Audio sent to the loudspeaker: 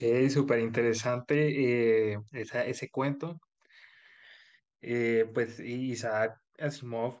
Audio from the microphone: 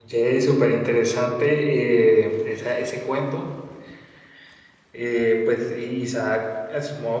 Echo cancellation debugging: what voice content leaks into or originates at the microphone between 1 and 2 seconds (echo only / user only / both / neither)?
echo only